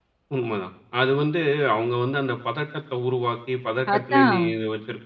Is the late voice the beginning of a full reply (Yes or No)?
No